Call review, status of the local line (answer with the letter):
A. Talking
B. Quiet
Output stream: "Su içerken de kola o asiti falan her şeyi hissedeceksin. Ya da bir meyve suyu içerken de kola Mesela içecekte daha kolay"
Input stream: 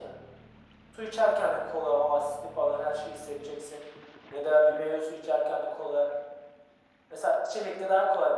B